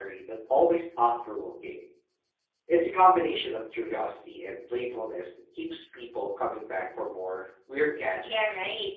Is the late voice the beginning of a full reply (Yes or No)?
Yes